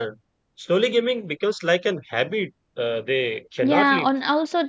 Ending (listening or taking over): taking over